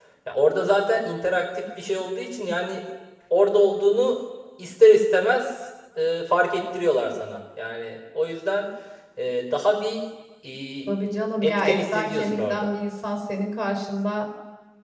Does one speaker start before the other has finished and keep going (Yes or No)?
Yes